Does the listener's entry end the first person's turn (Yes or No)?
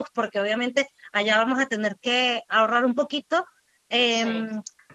No